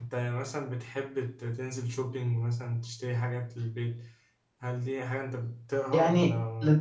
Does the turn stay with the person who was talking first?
No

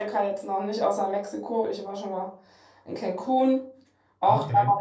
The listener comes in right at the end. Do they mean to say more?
No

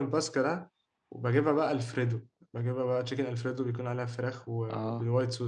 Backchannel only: Yes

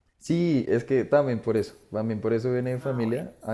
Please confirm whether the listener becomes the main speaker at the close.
No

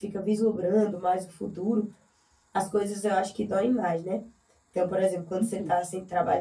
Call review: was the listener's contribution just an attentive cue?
Yes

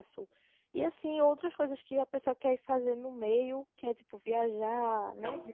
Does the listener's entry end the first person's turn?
Yes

